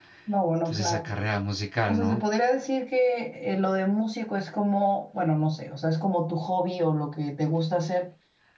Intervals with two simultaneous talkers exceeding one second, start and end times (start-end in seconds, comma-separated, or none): none